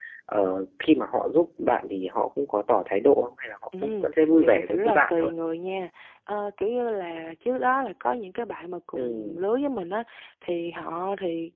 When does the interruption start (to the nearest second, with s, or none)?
4 s